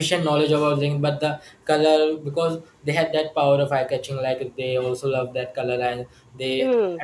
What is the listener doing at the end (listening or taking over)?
listening